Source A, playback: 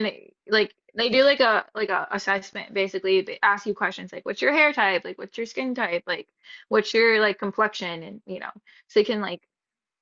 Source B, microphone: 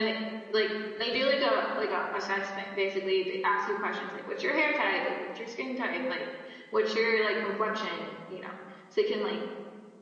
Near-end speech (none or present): none